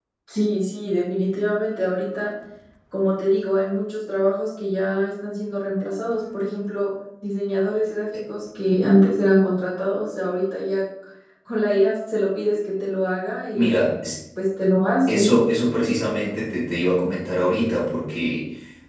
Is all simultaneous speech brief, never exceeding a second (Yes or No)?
Yes